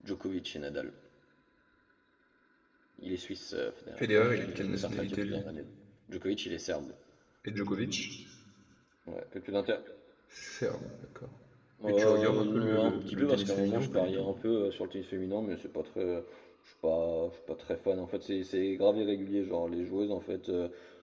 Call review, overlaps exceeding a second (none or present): present